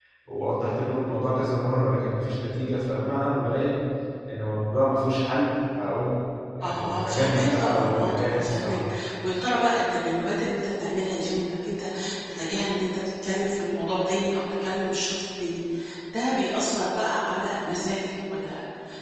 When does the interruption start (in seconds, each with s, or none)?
6.6 s